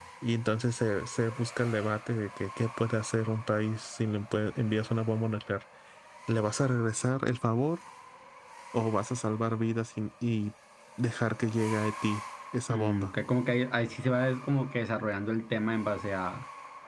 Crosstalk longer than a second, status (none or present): none